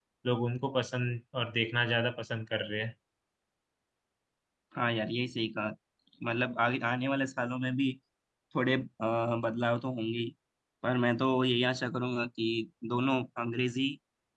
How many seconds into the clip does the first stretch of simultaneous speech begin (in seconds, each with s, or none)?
none